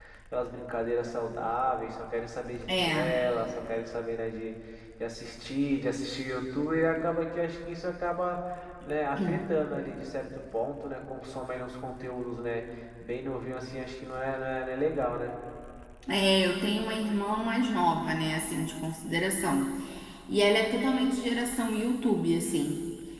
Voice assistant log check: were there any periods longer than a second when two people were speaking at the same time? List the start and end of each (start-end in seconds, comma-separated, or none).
none